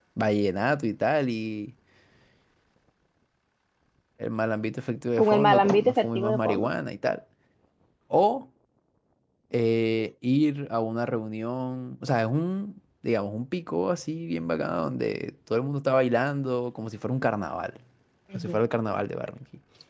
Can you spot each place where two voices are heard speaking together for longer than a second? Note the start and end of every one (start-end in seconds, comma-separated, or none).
5.2-6.7